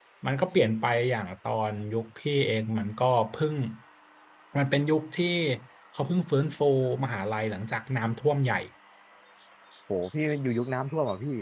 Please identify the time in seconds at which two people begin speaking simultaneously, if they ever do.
none

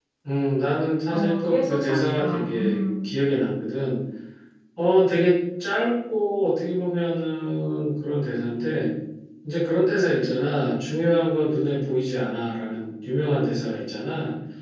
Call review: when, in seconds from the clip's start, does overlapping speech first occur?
1.1 s

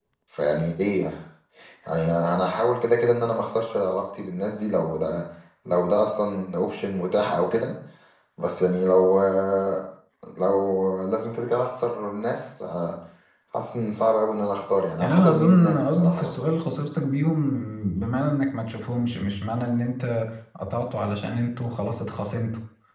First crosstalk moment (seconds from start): 15.0 s

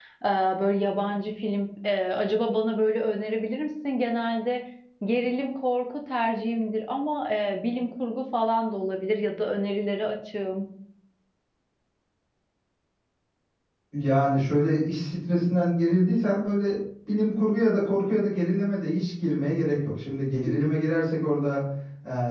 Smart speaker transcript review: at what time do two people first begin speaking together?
none

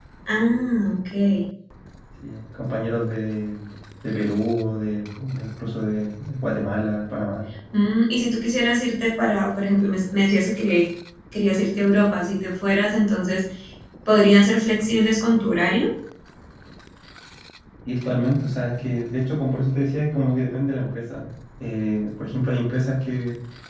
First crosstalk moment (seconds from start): none

